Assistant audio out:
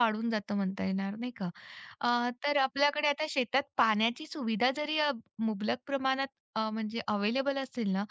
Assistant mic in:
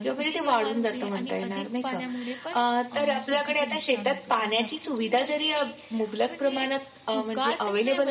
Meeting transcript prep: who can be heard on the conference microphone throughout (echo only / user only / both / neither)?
both